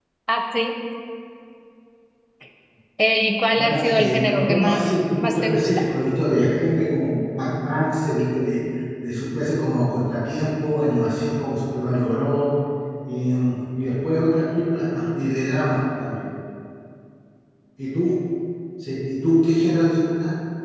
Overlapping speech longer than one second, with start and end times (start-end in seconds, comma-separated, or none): 3.5-5.7